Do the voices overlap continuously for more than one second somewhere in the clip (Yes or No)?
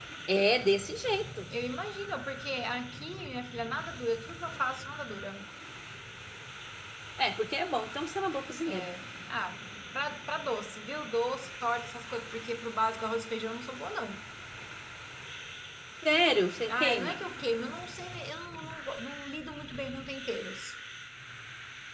No